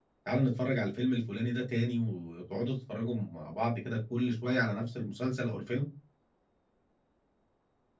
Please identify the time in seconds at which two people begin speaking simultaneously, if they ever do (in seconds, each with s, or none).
none